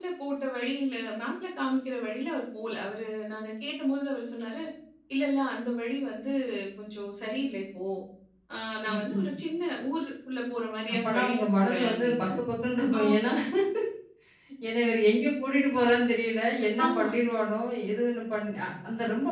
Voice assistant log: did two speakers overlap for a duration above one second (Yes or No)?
Yes